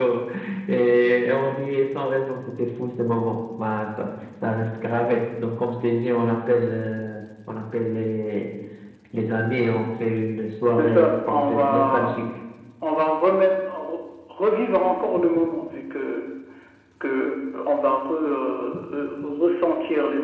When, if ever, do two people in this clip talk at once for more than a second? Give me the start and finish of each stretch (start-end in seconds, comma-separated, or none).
10.7-12.1